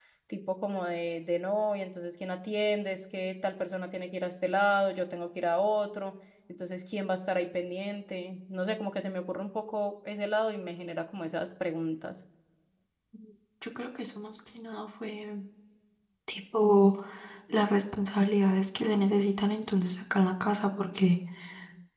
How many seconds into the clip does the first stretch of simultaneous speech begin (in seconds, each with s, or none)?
none